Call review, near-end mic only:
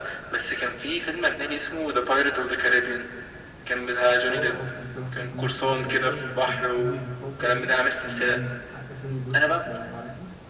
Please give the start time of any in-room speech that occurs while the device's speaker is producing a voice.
4 s

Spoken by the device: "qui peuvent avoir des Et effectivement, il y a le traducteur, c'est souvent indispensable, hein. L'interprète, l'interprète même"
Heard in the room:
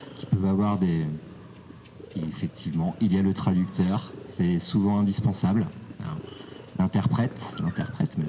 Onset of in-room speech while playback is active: none

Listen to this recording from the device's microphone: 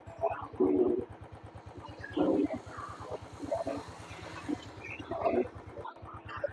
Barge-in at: none

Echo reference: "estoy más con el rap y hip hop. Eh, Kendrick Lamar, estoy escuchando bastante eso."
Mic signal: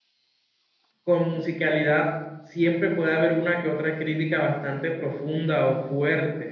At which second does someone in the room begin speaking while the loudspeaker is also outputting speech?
1 s

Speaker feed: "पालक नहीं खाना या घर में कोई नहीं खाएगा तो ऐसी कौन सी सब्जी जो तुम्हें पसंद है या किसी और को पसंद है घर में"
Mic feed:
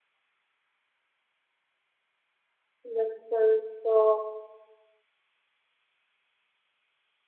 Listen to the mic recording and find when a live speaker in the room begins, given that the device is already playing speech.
3 s

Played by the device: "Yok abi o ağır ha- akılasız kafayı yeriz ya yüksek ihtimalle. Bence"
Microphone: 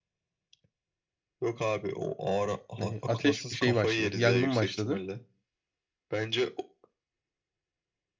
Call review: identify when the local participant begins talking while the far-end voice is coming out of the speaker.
3 s

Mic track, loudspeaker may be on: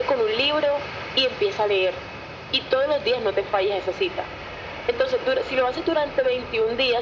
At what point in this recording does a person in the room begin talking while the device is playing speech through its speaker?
none

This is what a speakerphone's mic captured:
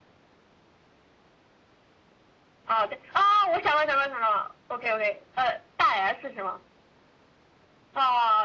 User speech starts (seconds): none

